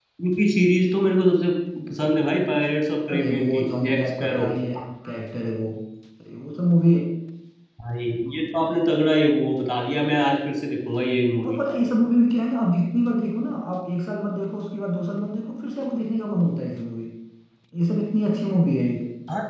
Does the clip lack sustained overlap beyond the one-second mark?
No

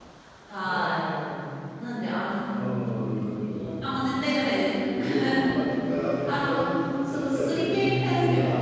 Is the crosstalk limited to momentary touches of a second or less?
No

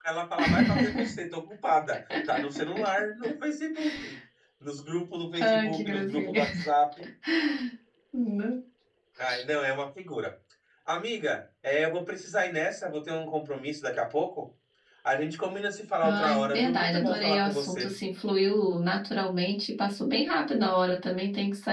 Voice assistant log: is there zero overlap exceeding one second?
No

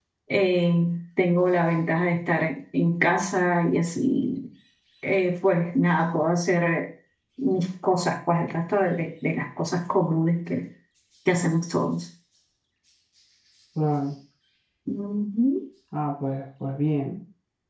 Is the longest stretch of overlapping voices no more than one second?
Yes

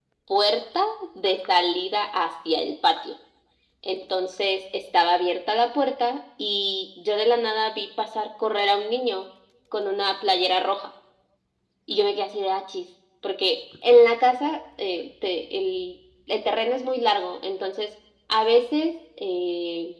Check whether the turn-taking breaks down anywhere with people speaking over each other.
No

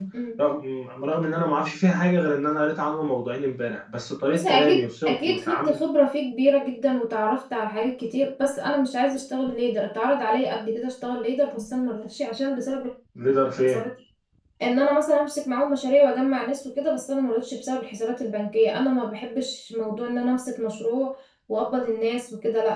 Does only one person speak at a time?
No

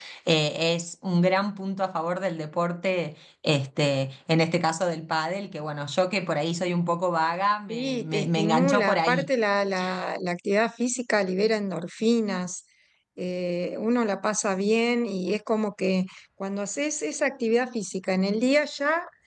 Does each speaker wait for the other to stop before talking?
No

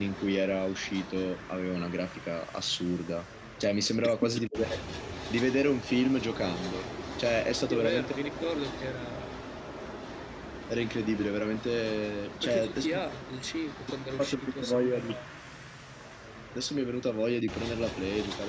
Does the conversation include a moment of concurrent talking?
Yes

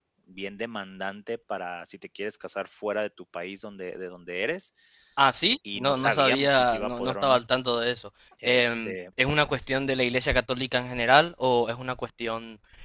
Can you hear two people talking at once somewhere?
Yes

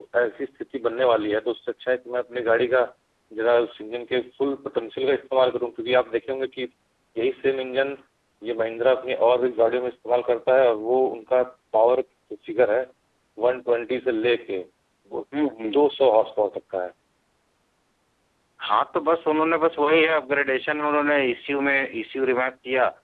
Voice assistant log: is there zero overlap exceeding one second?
Yes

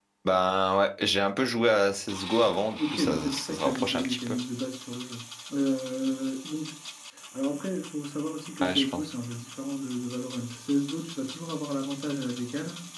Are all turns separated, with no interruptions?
No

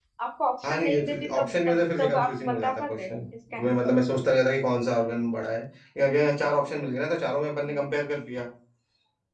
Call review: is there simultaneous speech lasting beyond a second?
Yes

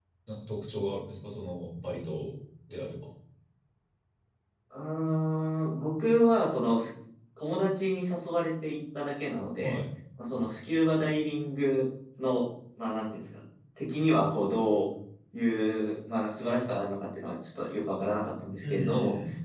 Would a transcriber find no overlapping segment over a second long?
Yes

